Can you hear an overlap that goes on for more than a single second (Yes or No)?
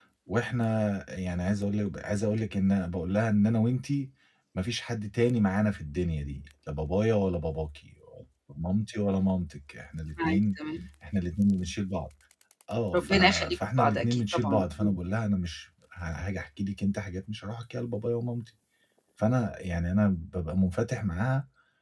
Yes